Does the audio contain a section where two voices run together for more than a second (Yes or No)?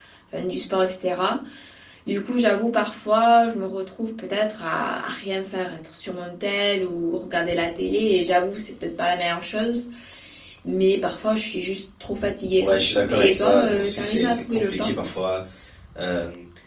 Yes